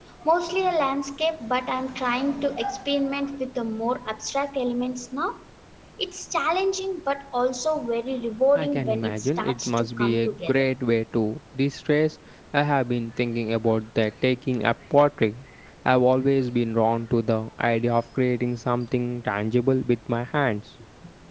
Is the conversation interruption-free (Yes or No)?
No